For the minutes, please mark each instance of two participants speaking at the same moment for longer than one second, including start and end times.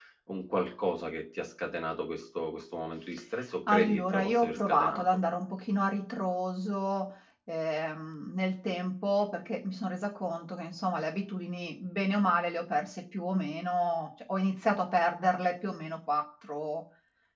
3.7-5.0

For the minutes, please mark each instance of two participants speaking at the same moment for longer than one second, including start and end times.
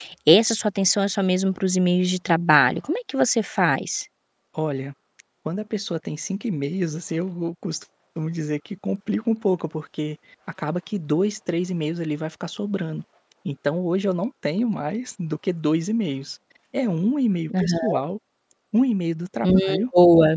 none

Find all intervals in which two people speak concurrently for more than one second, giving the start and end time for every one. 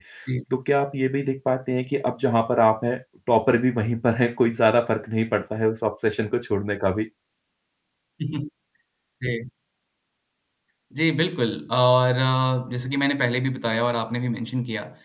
none

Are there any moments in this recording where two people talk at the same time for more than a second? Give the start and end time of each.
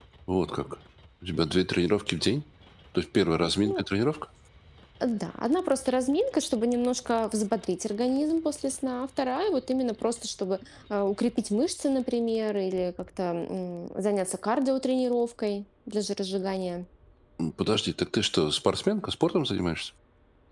none

